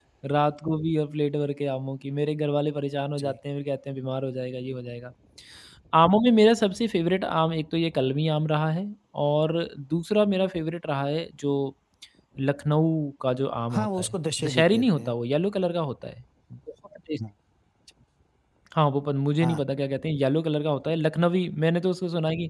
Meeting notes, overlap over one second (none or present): present